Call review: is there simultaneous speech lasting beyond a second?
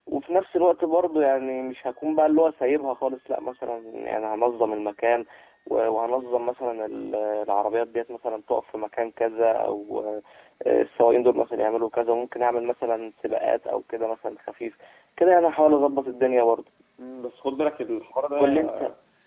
No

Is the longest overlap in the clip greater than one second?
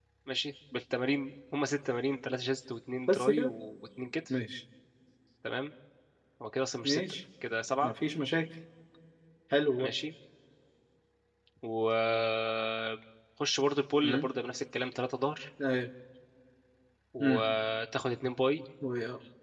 No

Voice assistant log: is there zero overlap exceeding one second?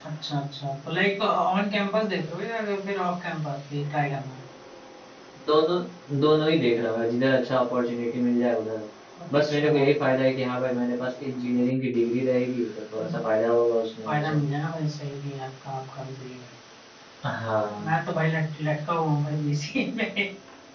Yes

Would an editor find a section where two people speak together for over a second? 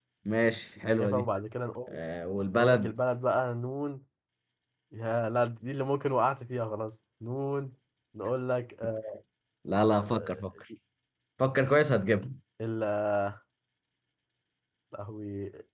No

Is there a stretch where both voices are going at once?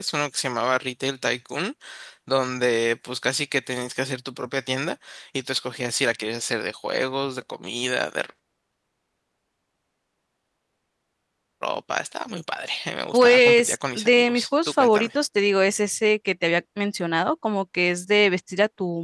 Yes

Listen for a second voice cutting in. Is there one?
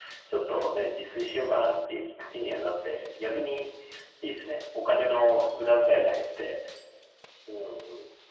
No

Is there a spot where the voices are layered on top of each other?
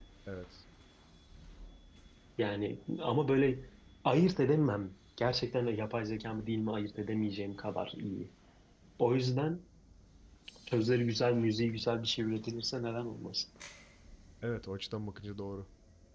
No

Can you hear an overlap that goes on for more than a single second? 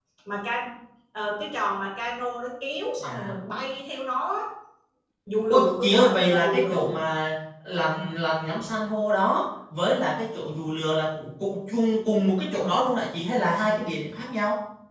Yes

